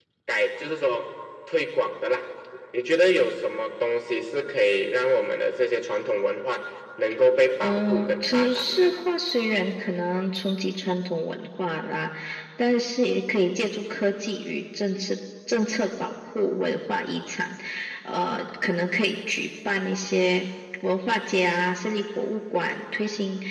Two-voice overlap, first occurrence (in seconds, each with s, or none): 7.6 s